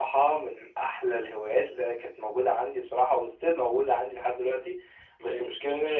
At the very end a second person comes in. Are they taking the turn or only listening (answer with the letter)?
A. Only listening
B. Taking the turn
A